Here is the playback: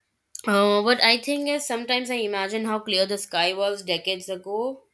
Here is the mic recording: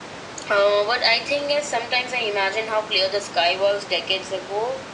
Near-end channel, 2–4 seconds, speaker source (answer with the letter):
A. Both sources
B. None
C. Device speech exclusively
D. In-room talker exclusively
C